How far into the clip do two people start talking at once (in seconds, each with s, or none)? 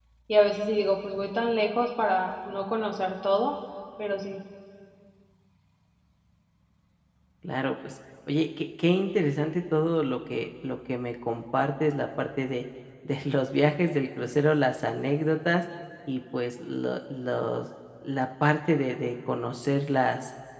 none